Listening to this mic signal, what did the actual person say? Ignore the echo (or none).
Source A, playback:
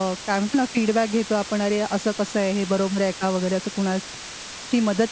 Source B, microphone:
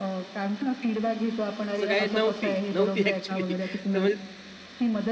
असं काही नव्हती, नव्हती ॲक्चुअली. तर म्हणजे